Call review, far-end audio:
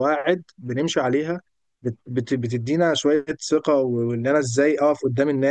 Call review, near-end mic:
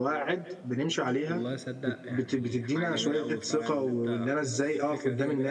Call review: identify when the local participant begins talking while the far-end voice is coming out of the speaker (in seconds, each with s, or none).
1.3 s